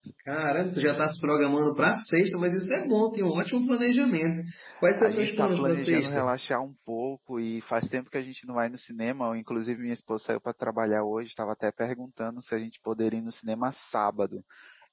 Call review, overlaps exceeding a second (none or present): present